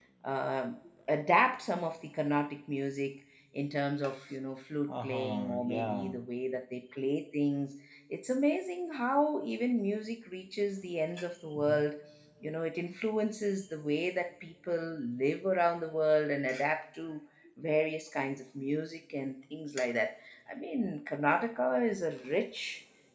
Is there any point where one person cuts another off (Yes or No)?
Yes